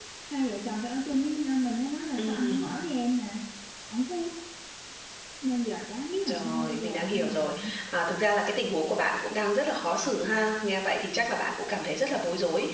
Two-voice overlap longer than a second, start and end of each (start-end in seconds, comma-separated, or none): 6.3-7.6